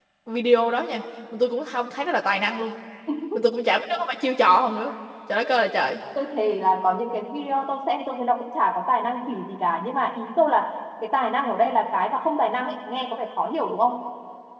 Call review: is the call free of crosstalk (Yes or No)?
Yes